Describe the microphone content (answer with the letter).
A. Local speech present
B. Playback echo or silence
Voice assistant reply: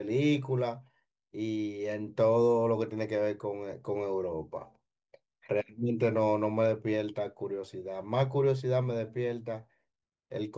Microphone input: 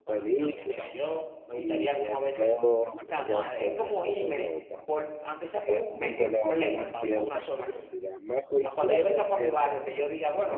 A